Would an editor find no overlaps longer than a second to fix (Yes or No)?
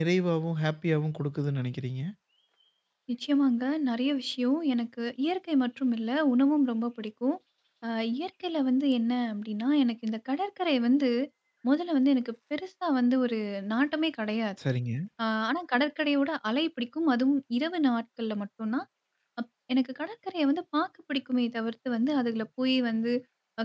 Yes